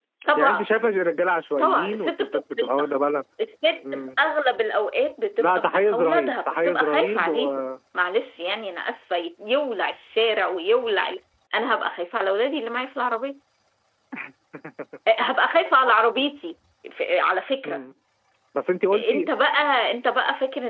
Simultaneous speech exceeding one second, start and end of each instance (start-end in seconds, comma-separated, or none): 1.6-2.9, 5.4-7.5